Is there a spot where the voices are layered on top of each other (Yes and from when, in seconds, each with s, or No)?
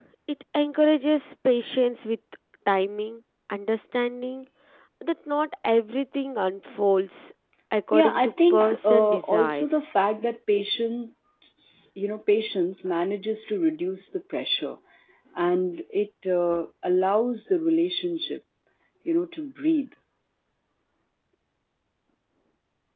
Yes, from 7.9 s